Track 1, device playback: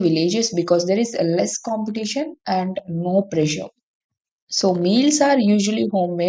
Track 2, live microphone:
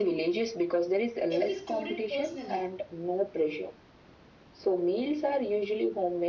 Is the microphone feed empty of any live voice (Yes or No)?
No